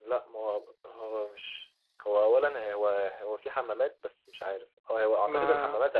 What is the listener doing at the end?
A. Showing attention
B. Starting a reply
A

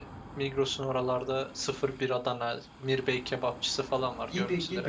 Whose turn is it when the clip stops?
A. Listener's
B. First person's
A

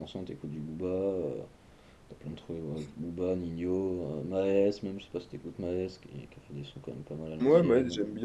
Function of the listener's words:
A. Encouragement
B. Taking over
B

